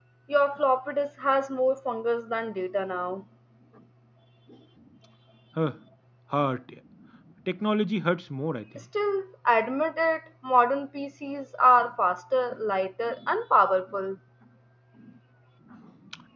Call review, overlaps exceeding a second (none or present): none